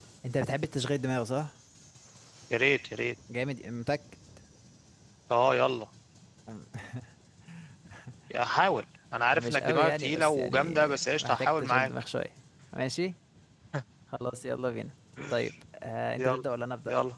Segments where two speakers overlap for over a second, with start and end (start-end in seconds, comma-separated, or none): 9.3-11.9